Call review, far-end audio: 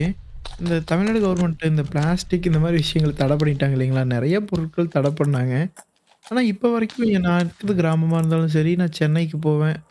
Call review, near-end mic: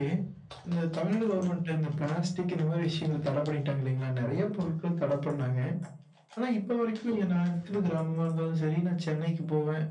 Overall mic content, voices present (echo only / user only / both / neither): echo only